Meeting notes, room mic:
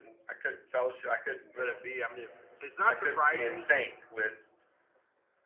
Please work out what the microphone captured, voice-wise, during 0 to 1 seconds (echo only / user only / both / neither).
echo only